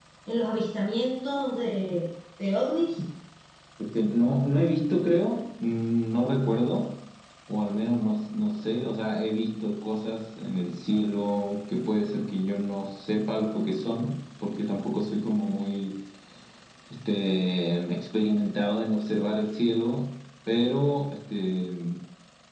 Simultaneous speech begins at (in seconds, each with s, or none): none